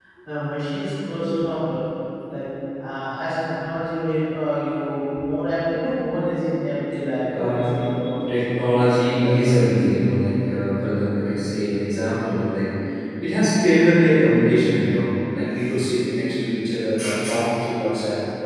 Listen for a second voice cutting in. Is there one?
Yes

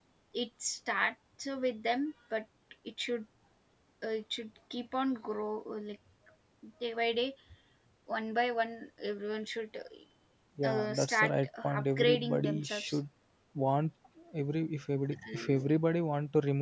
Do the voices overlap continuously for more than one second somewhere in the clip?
Yes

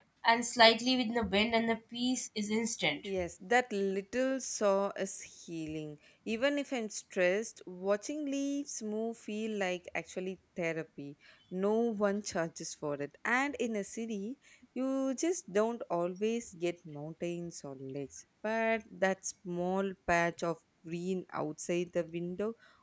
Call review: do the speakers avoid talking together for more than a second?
Yes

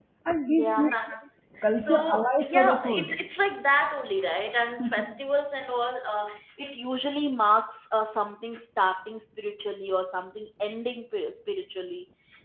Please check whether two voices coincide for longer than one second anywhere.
Yes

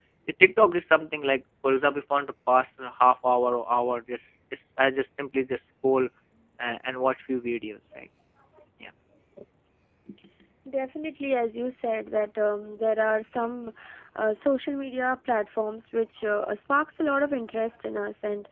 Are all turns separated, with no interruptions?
Yes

